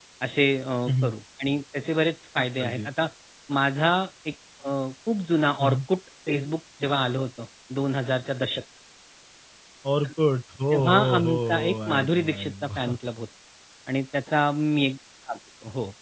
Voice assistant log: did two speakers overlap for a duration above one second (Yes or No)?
Yes